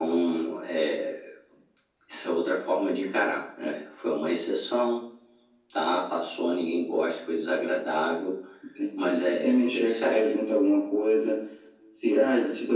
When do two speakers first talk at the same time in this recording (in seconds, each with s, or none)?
9.0 s